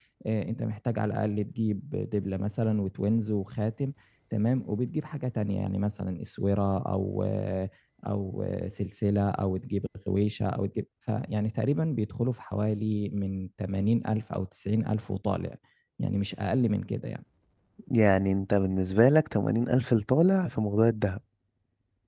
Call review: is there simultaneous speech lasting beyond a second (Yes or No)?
No